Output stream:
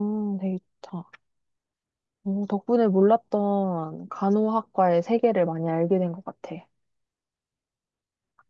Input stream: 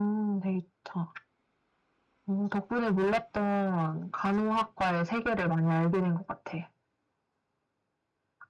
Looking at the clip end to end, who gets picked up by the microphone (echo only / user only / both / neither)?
echo only